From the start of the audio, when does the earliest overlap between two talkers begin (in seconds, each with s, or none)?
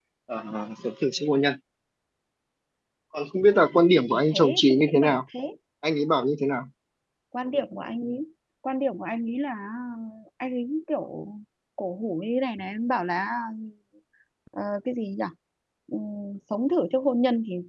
3.9 s